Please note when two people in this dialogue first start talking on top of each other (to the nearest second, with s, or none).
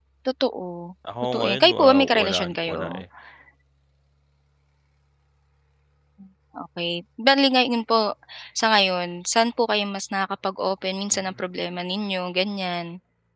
1 s